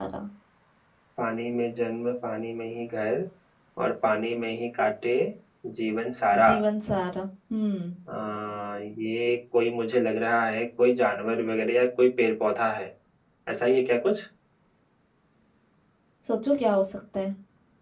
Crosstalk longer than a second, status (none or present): none